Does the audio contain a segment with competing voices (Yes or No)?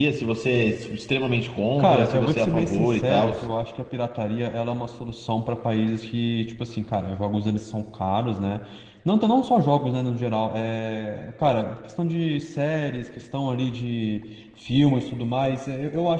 Yes